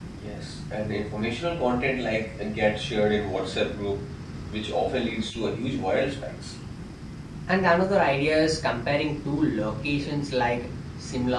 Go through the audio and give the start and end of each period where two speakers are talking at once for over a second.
none

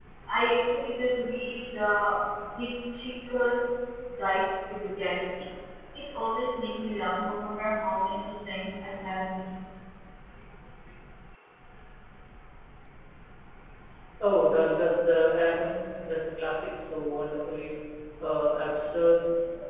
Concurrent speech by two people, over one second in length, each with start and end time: none

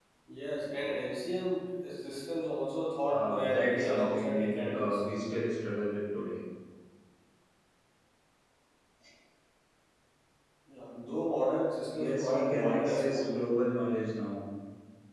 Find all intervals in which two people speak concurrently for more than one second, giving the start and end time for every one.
3.1-5.0, 12.0-13.4

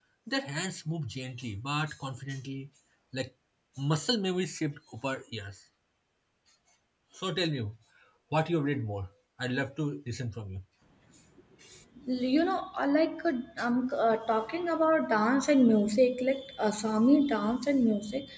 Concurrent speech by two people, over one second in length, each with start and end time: none

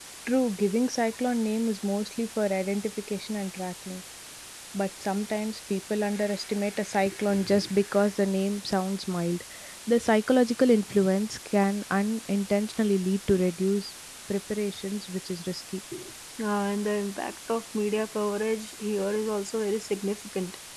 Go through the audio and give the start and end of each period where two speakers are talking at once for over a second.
none

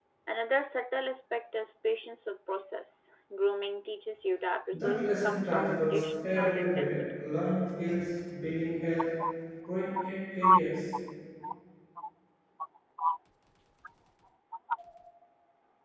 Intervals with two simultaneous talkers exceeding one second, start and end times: 4.7-7.0

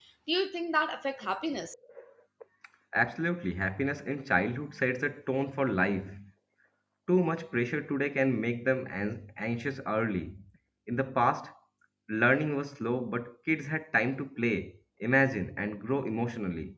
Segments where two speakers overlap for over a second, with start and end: none

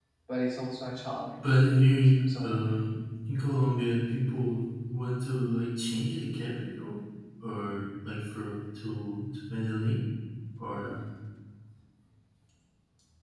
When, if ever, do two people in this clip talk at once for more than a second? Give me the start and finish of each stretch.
1.4-2.8

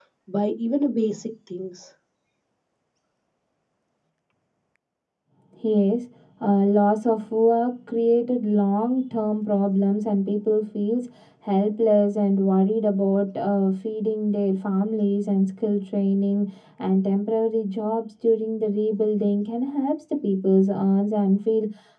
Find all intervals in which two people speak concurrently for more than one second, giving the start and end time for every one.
none

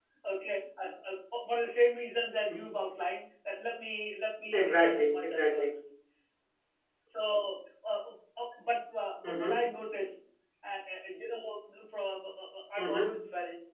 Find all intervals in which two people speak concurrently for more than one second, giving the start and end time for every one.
4.5-5.7

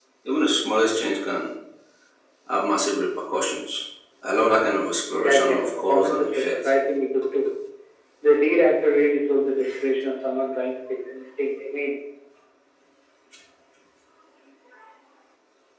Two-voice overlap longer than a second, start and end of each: 5.1-6.7

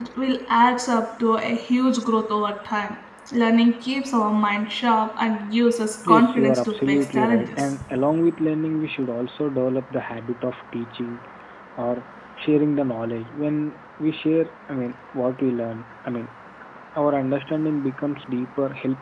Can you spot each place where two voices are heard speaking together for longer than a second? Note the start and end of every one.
6.1-7.7

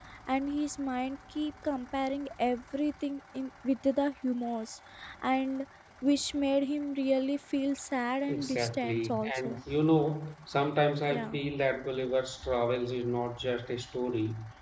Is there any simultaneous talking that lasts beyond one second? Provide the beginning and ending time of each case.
8.3-9.6

